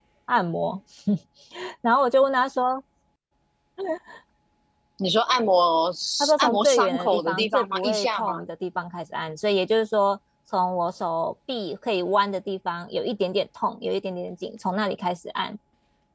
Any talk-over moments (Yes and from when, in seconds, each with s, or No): Yes, from 6.4 s